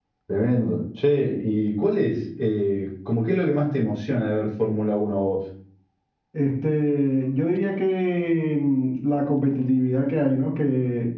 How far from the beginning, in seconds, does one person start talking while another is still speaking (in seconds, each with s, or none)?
none